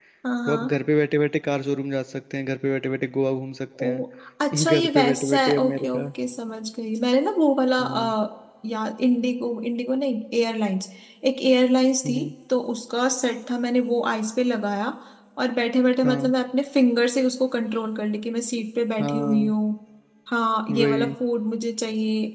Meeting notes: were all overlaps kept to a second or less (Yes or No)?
No